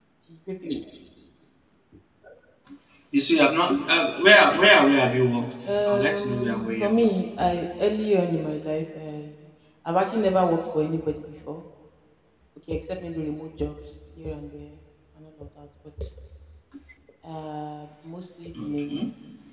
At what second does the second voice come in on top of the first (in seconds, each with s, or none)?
5.7 s